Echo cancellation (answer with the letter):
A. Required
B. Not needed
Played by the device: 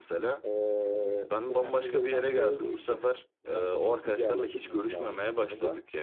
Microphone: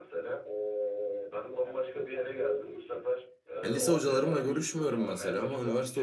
A